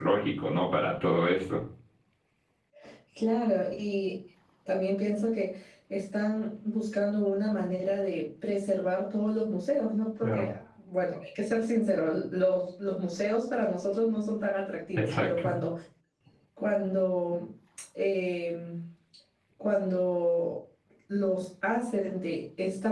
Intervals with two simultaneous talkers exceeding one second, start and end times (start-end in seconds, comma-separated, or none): none